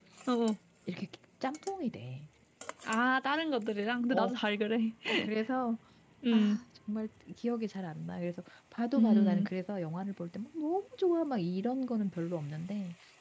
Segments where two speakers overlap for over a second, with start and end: none

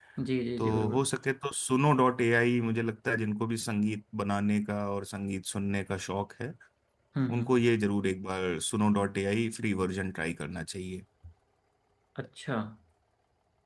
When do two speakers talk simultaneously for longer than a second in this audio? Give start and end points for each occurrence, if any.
none

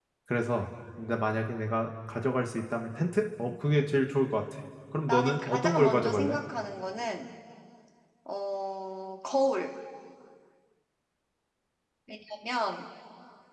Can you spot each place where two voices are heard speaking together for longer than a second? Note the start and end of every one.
5.1-6.4

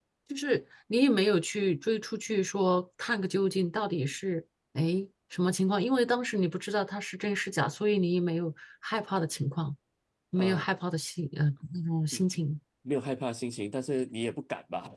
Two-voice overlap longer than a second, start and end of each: none

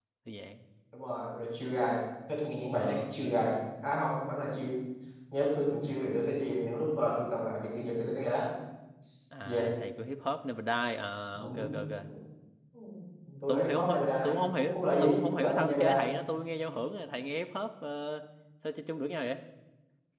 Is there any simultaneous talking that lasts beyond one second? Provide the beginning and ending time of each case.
13.5-16.0

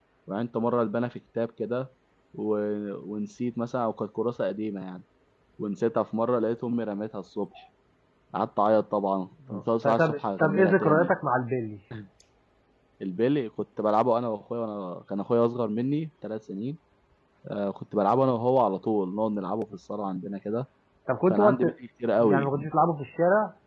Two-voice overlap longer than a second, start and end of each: 9.5-11.1

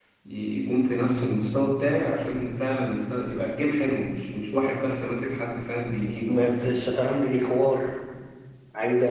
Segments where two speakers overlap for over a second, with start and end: none

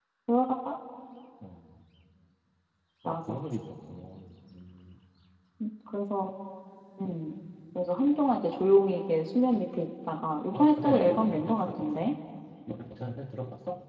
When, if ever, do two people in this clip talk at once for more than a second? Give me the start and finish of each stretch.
10.5-11.8

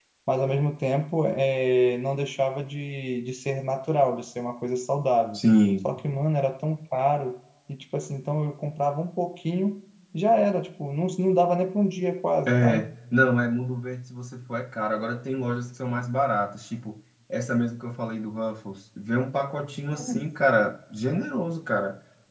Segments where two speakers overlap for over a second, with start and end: none

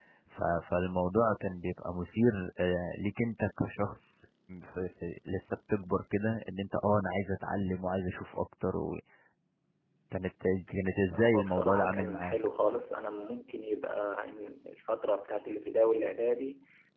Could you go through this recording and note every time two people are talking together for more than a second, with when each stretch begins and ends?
11.2-12.4

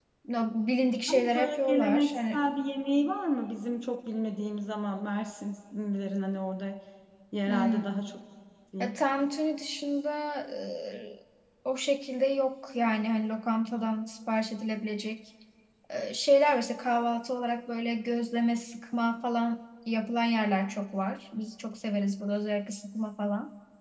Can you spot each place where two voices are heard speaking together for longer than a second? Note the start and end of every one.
1.1-2.4

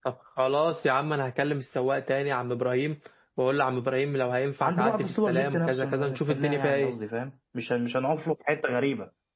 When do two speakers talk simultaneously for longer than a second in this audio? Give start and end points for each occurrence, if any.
4.6-6.9

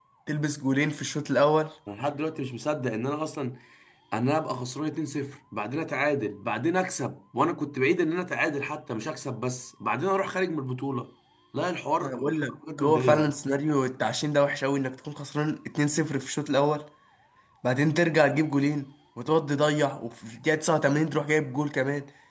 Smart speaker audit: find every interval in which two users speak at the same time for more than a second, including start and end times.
12.0-13.3

